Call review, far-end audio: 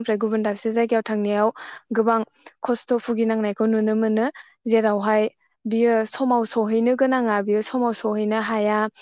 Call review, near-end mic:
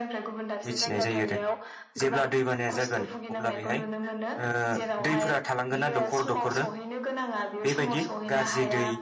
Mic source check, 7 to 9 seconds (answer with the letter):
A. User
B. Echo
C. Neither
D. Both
D